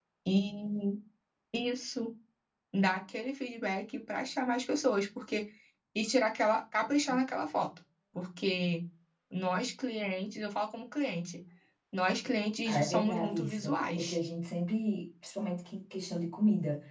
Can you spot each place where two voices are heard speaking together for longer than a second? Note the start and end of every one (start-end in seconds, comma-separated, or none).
12.7-14.2